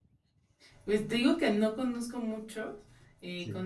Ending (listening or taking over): listening